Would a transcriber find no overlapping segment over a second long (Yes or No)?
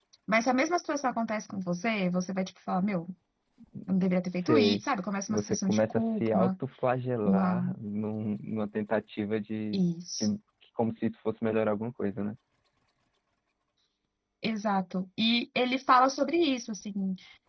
No